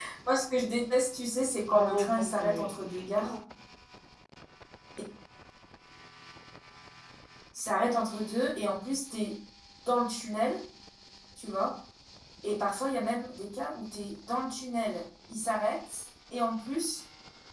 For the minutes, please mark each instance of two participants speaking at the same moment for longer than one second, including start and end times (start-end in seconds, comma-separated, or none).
1.7-3.3